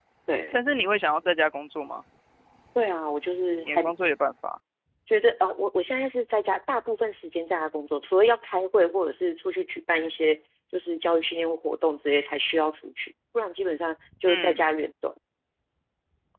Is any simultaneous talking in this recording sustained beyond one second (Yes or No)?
No